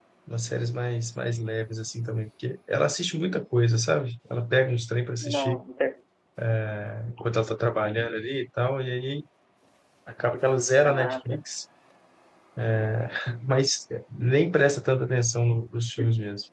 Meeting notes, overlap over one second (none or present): none